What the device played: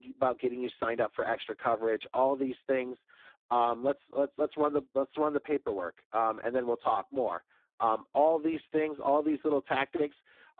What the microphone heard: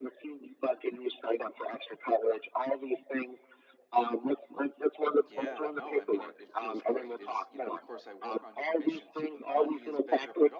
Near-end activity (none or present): present